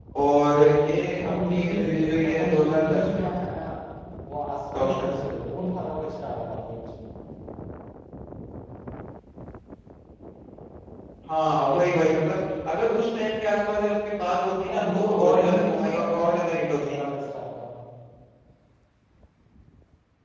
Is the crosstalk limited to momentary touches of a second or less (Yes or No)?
No